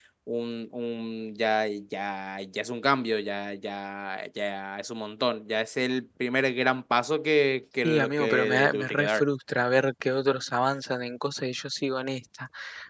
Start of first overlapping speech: 8 s

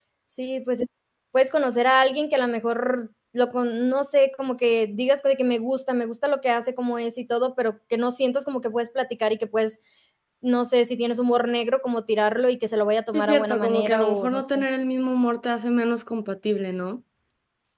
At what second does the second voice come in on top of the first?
13 s

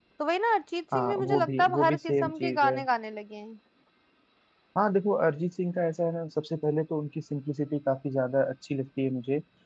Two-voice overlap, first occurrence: 1 s

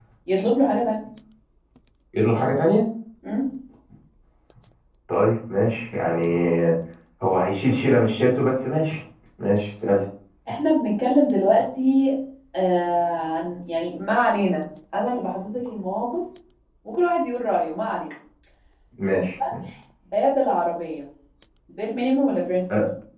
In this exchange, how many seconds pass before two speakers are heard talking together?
none

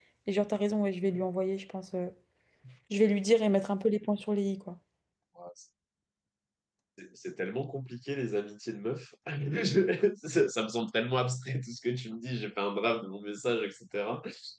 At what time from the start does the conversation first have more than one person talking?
none

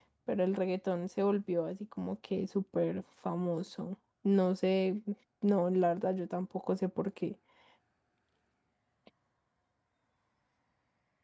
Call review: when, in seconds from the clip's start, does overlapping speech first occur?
none

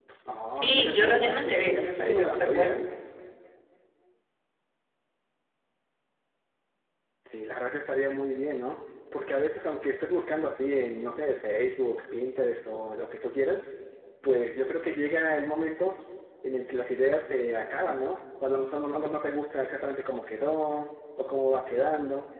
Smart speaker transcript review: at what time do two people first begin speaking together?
1 s

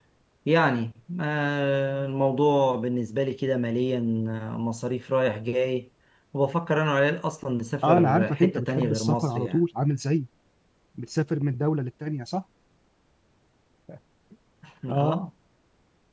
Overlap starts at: 8 s

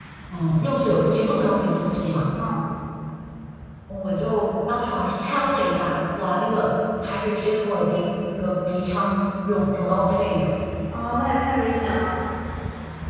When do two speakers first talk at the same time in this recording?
none

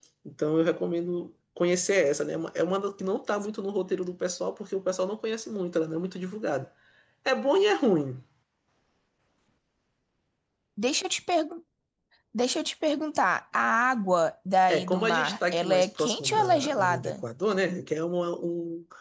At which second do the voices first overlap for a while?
15 s

